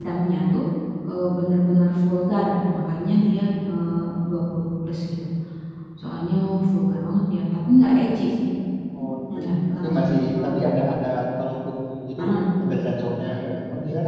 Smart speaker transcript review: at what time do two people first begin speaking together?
9.4 s

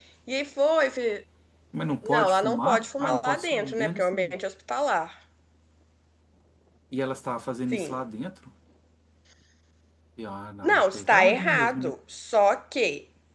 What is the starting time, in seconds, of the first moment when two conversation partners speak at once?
2.0 s

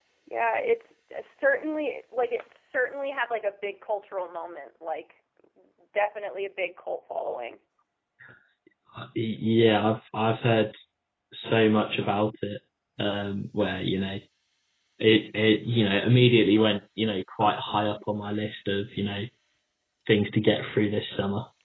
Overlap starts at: none

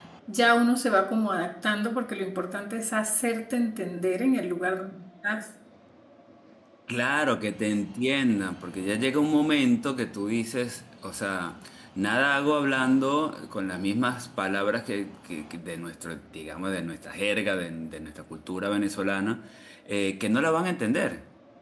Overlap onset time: none

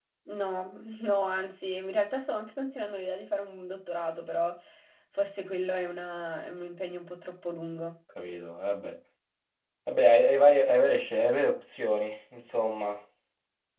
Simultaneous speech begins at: none

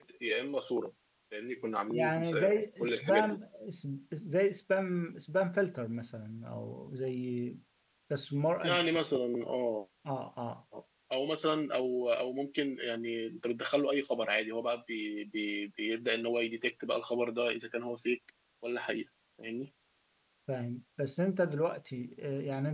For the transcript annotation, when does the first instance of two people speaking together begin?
1.9 s

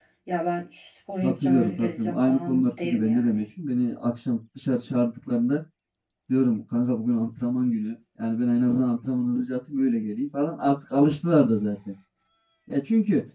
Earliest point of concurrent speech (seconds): 1.2 s

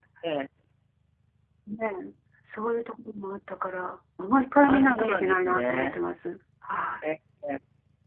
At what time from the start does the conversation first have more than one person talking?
4.6 s

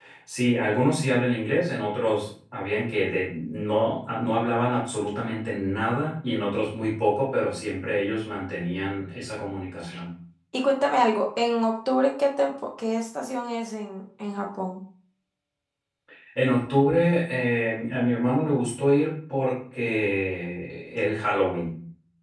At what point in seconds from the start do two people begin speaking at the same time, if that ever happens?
none

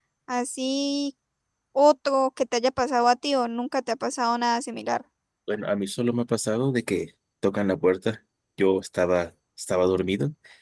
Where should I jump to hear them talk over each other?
none

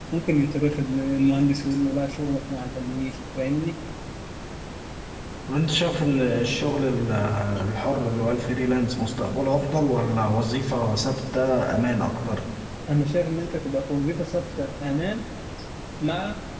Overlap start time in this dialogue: none

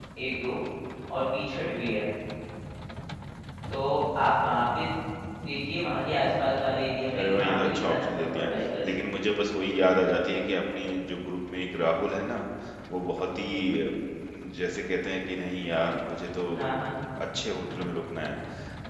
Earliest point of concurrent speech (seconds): 7.2 s

